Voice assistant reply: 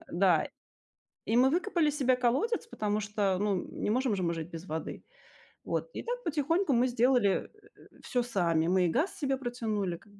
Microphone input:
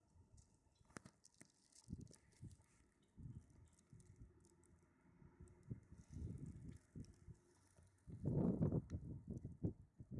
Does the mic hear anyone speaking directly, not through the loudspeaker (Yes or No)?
No